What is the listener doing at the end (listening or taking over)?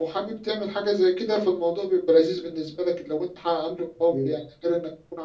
listening